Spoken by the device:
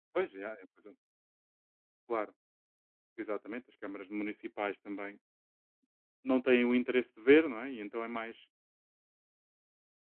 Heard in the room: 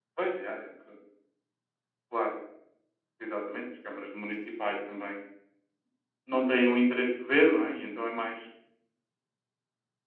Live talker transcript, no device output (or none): none